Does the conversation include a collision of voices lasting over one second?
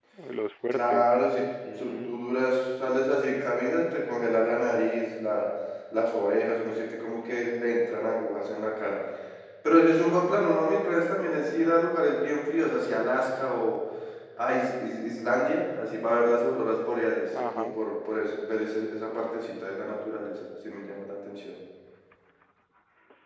No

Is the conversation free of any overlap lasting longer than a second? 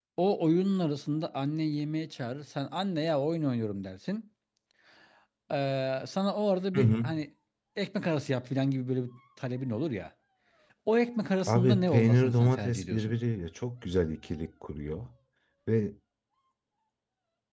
No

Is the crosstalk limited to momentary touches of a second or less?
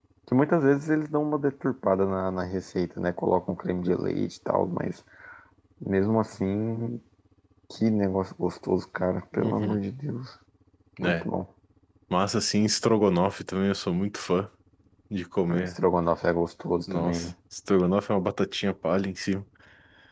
Yes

